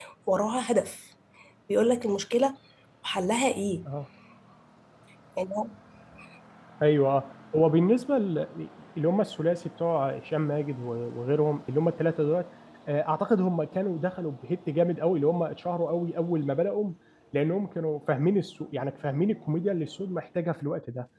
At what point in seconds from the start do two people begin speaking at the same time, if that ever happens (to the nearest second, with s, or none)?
none